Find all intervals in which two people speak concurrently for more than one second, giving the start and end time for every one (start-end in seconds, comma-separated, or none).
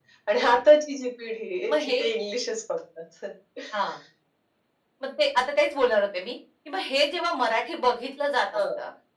none